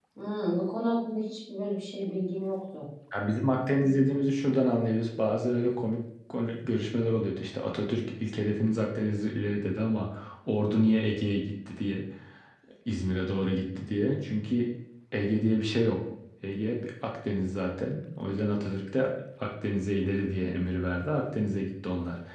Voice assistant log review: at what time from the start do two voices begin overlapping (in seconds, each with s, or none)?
none